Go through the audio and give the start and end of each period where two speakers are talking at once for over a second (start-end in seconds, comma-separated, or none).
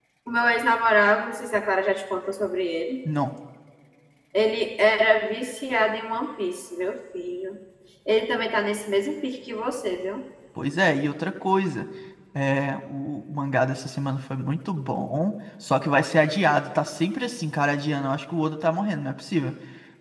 none